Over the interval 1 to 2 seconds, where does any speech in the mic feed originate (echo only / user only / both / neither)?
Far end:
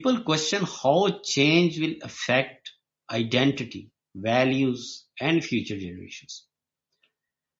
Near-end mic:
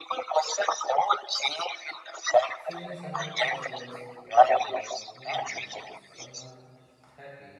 echo only